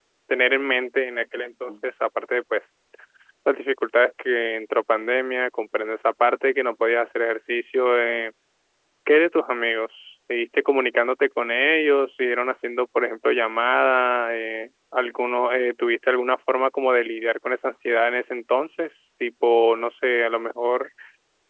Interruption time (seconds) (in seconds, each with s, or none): none